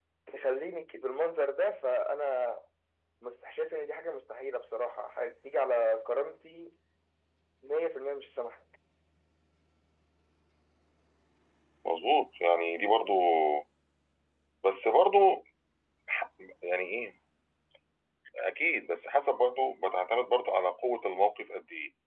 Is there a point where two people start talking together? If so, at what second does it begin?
none

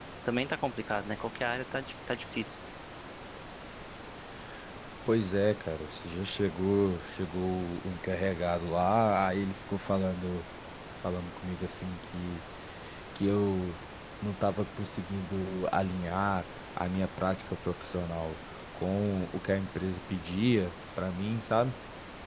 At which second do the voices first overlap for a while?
none

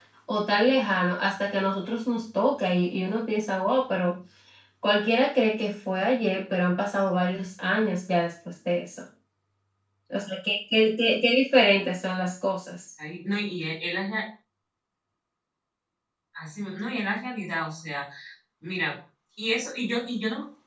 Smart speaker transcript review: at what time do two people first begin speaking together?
none

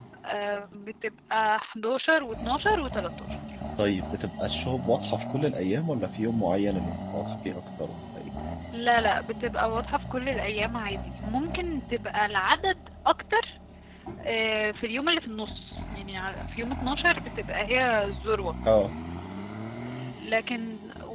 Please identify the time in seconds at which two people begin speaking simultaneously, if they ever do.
none

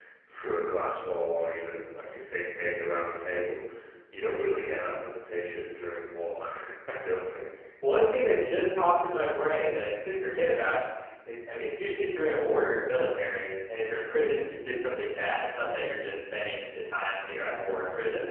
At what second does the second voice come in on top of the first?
none

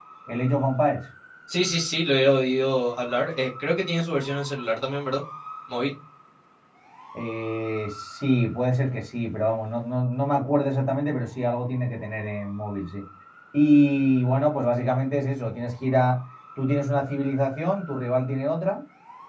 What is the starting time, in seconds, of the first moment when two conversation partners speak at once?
none

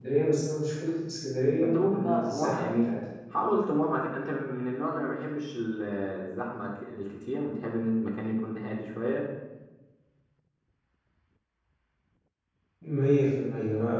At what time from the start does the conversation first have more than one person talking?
1.6 s

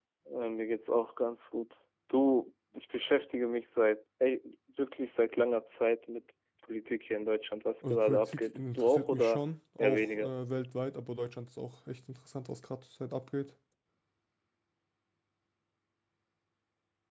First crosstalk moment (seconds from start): 7.9 s

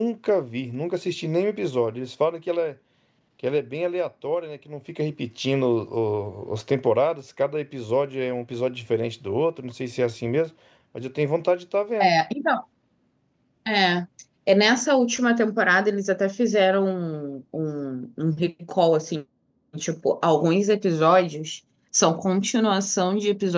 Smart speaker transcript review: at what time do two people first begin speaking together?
none

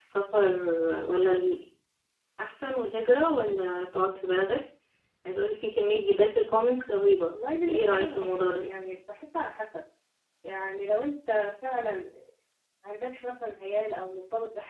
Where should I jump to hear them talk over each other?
7.3 s

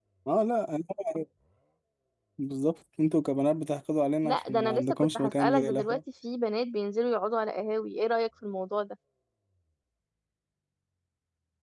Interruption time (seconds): 4.2 s

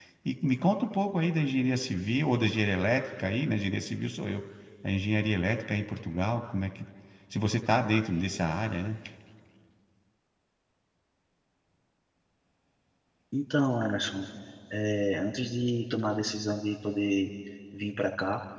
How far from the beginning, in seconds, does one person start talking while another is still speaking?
none

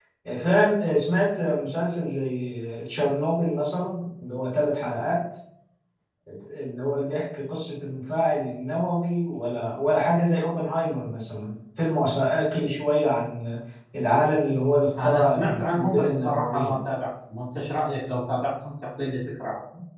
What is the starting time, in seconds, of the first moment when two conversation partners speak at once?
15.0 s

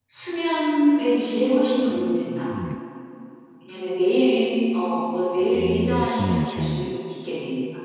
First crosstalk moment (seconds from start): 5.5 s

